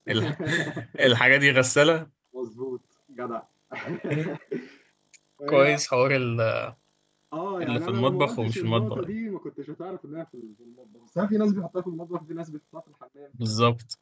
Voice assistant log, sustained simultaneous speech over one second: present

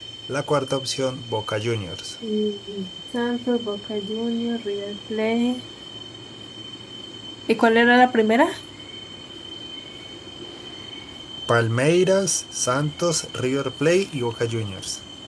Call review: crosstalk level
none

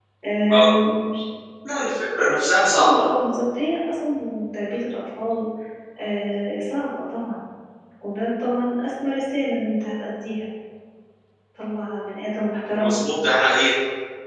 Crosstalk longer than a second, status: none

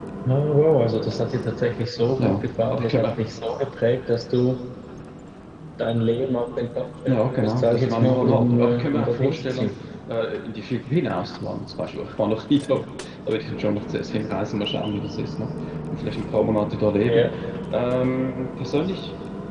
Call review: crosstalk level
present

